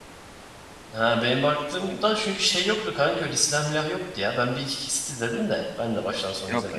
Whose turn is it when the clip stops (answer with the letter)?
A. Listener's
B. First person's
A